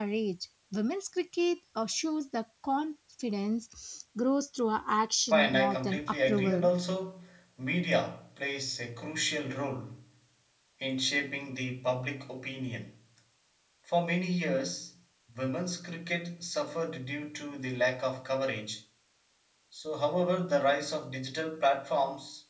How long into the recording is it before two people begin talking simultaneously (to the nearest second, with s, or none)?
5 s